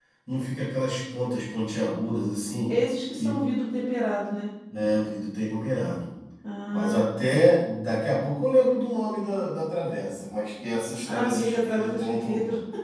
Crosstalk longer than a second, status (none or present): present